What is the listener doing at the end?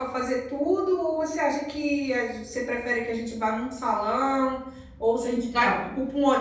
listening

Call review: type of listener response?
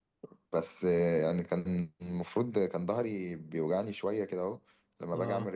listening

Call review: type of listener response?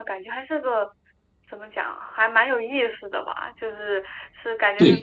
listening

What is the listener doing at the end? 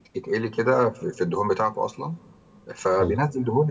listening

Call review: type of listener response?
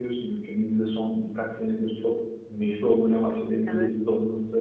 listening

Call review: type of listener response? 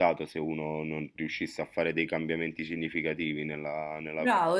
taking over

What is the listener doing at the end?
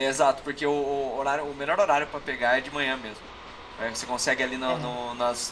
listening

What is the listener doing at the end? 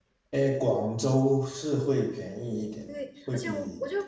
taking over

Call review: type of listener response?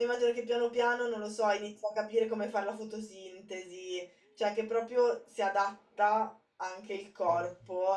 listening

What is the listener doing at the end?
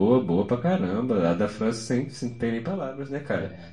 listening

